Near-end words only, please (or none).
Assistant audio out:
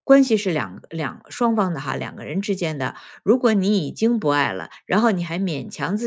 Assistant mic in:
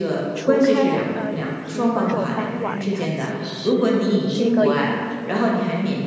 除开呃提分手当晚，他其实是一个